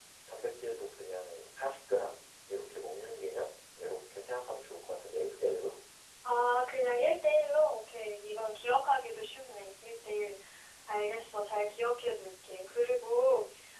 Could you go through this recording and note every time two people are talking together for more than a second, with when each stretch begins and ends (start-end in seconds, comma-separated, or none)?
none